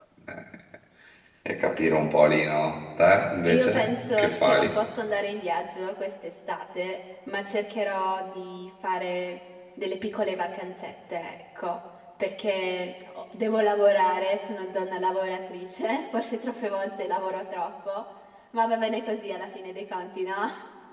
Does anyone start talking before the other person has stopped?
Yes, from 3.5 s

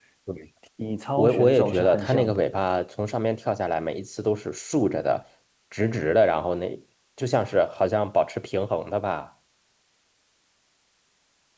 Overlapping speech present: Yes, from 1.2 s

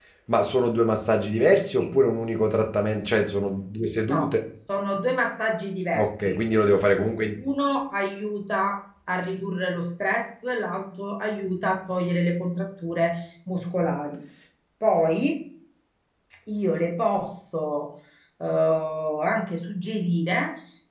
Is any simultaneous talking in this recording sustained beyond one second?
No

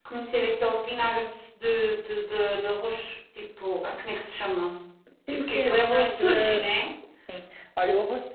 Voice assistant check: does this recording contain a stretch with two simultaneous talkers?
Yes, from 5.3 s

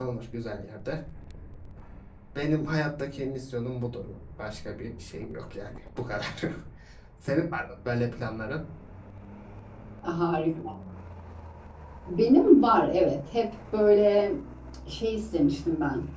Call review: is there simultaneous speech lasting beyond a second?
No

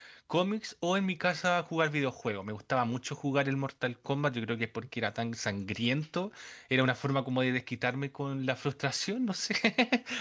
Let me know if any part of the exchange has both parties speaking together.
No

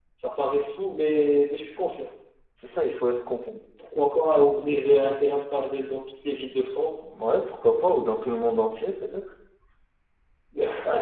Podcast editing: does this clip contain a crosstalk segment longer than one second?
No

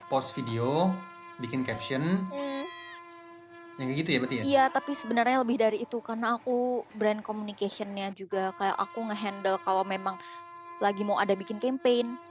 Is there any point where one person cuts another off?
No

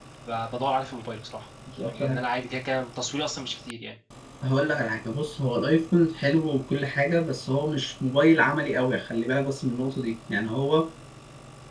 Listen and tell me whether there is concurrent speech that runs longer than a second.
No

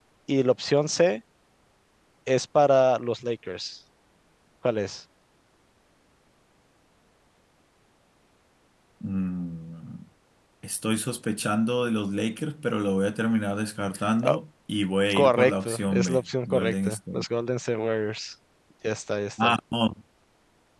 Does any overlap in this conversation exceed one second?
Yes, from 15.1 s

